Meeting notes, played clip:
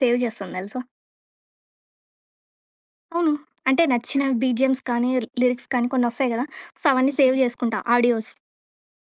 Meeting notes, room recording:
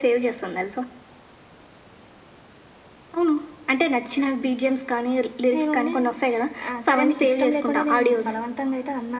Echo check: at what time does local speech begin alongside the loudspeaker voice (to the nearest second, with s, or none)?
6 s